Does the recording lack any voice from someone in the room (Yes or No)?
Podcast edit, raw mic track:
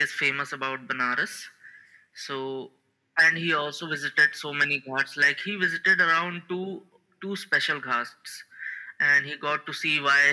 Yes